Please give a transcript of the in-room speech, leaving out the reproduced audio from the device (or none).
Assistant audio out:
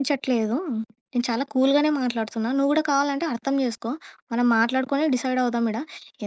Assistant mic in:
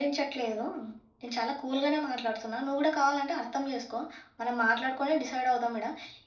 none